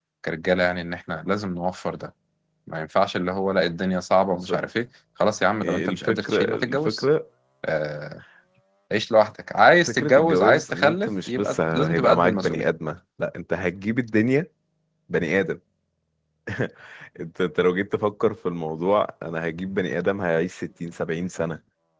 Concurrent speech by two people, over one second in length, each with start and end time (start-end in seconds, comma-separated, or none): 5.6-7.0, 9.9-12.7